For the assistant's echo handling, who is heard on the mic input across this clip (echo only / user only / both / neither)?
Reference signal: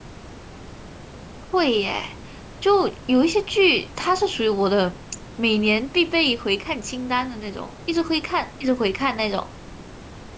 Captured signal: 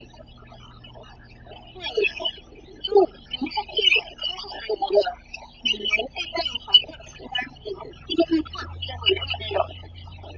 echo only